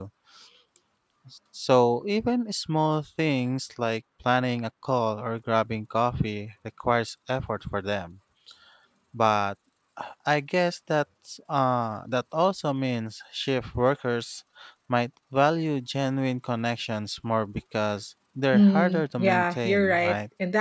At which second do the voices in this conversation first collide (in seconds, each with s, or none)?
18.5 s